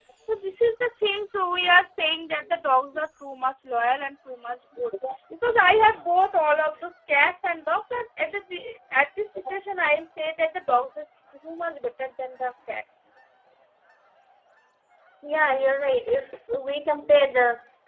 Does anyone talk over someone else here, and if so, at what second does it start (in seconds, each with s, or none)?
none